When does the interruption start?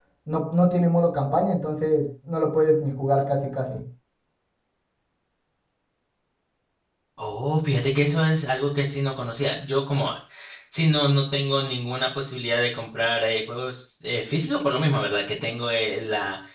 none

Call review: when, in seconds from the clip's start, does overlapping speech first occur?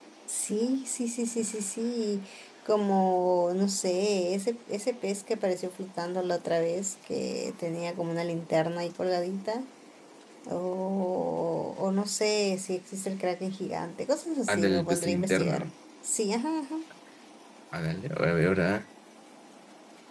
14.5 s

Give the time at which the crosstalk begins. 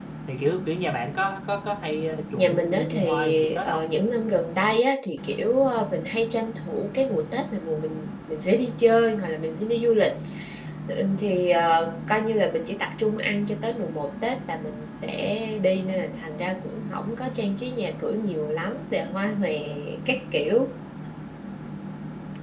2.4 s

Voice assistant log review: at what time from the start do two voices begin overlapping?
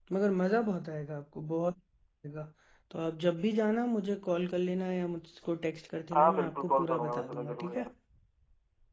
6.1 s

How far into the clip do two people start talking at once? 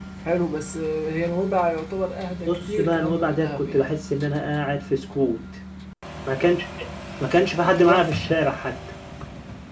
2.5 s

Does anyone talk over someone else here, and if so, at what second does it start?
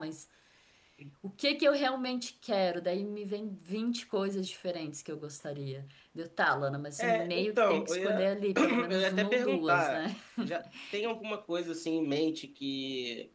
7.0 s

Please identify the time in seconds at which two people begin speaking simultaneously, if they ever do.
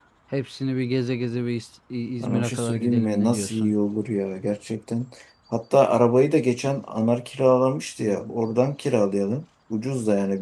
2.2 s

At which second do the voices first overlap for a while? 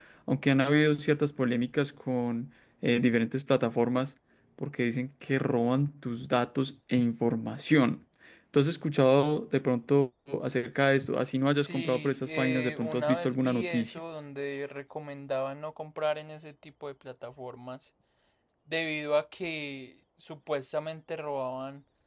11.5 s

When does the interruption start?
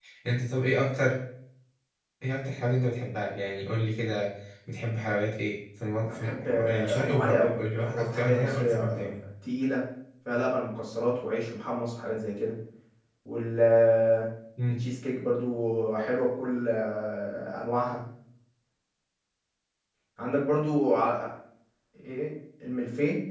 6.1 s

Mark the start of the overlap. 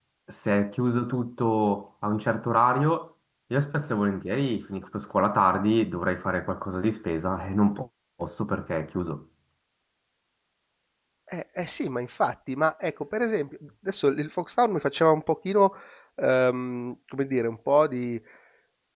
none

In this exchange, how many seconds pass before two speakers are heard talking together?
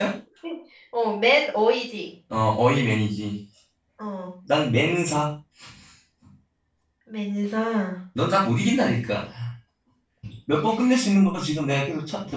none

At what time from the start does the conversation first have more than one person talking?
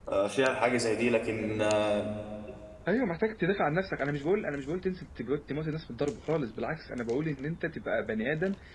none

